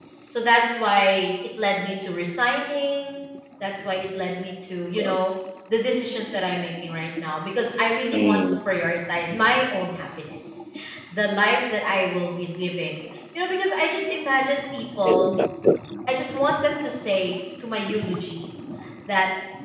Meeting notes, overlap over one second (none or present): none